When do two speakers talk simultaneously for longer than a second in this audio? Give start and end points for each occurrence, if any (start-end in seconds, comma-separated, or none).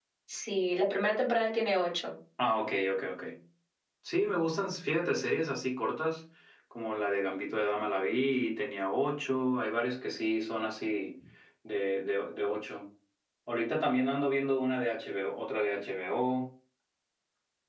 none